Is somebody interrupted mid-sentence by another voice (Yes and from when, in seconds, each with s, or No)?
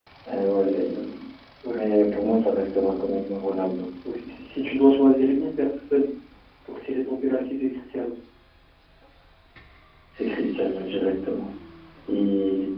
No